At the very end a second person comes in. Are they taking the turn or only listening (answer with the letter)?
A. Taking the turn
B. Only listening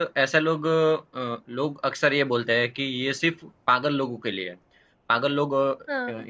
B